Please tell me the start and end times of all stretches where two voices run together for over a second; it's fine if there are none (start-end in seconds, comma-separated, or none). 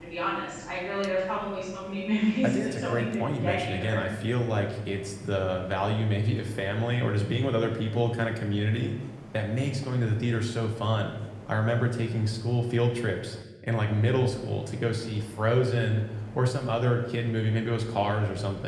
2.4-4.0